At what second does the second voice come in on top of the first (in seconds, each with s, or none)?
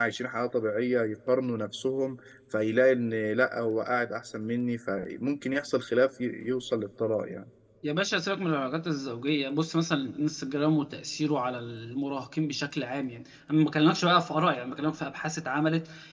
none